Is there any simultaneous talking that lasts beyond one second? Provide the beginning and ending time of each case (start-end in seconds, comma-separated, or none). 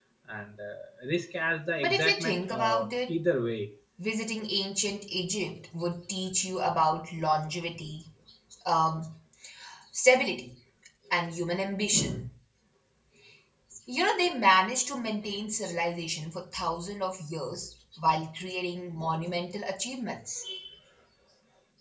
1.8-3.2